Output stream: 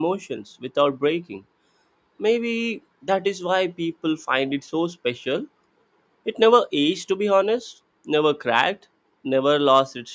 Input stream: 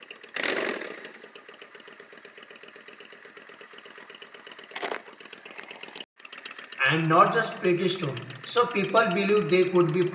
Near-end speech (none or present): present